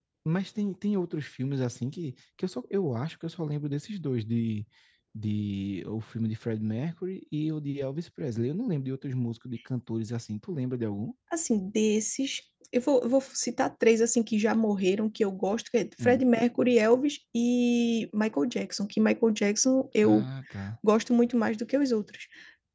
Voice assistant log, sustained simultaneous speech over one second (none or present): none